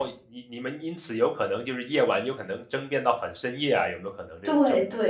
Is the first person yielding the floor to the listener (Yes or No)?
Yes